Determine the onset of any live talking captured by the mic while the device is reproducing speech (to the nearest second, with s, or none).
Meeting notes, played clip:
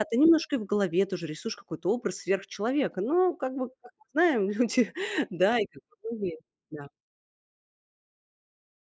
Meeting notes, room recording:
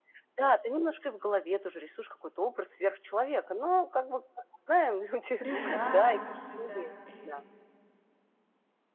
5 s